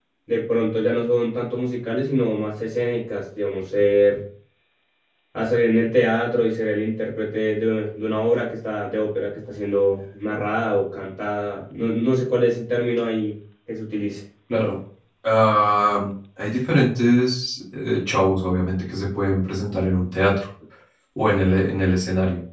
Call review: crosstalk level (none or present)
none